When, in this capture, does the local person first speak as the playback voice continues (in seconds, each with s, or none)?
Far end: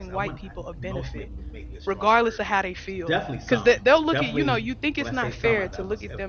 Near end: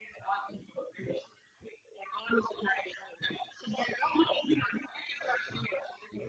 none